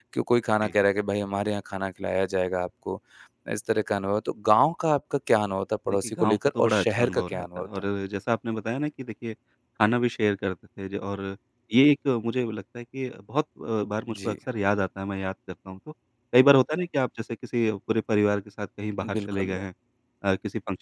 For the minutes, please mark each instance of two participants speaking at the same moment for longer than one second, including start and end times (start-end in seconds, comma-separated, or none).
6.2-7.8